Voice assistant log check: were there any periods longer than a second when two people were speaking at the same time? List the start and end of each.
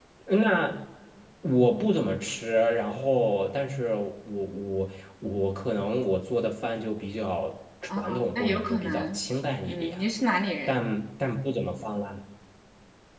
8.0-9.2

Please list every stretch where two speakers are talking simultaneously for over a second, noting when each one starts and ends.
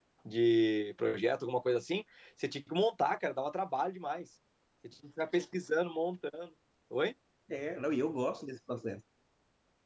none

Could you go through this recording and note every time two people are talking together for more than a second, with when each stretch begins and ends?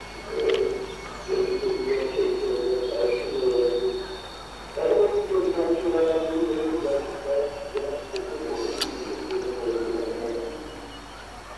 8.3-10.1

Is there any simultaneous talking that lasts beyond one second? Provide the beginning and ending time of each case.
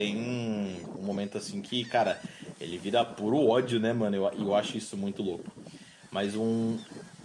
none

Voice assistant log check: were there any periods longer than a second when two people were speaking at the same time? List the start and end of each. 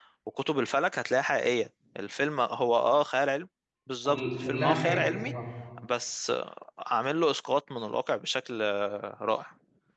4.0-5.3

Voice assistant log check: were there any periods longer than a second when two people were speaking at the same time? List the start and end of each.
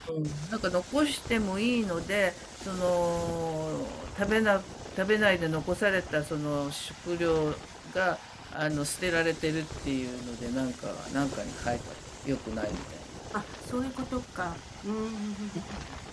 none

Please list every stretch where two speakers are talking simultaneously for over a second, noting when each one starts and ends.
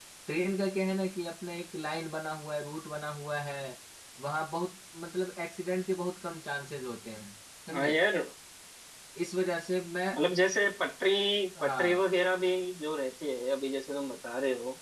none

